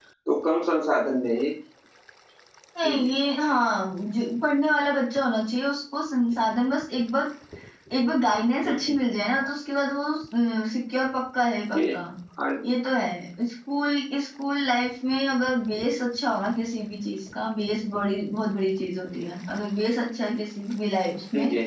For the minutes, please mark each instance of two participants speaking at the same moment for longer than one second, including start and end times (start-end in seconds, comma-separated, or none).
none